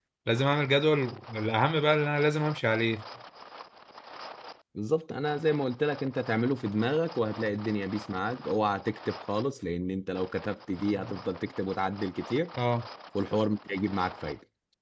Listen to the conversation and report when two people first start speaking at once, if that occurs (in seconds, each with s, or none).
none